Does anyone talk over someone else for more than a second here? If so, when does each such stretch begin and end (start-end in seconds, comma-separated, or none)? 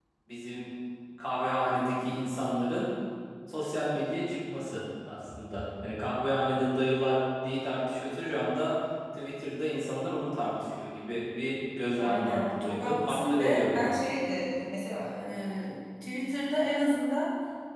12.0-14.0